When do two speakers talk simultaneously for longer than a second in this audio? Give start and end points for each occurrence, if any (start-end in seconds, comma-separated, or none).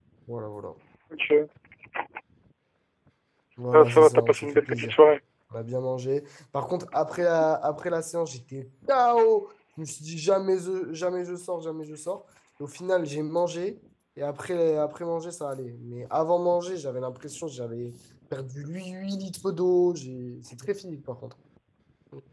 3.7-5.2